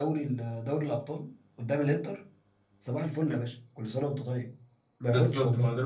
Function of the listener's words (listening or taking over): taking over